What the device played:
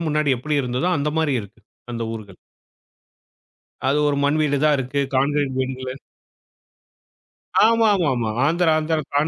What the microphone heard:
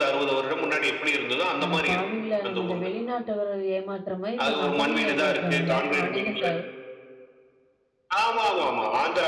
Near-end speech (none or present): present